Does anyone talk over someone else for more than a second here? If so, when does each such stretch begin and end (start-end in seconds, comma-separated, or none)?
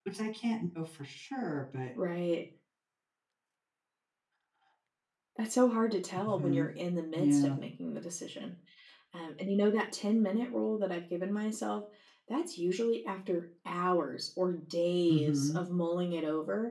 none